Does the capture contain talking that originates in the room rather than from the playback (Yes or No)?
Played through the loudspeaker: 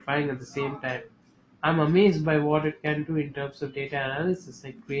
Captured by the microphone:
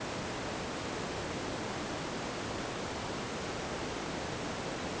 No